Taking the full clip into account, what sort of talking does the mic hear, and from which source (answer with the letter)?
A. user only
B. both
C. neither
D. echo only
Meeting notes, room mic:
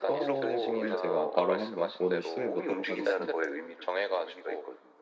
B